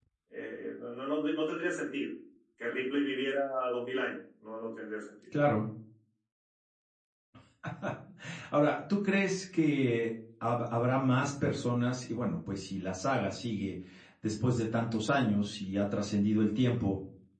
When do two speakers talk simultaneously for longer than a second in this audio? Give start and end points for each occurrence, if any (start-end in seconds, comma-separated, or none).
none